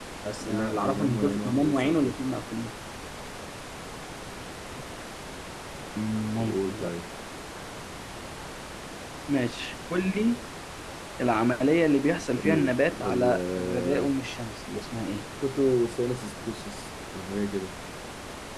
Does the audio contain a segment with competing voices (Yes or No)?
Yes